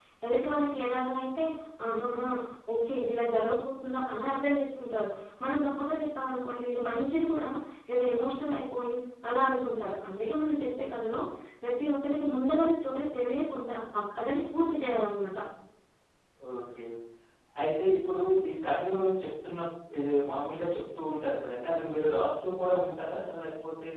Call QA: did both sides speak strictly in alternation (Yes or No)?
Yes